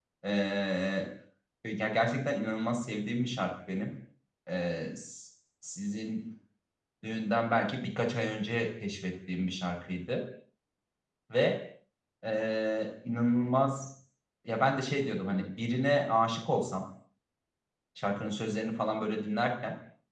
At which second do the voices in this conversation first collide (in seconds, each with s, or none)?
none